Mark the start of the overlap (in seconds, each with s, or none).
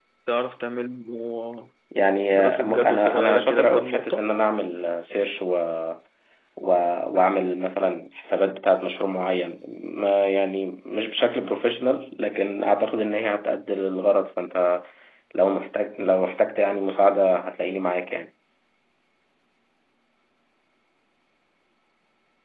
2.3 s